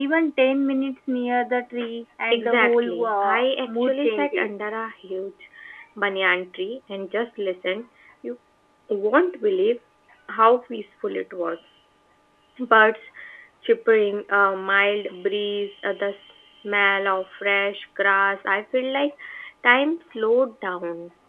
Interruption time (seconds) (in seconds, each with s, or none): 2.3 s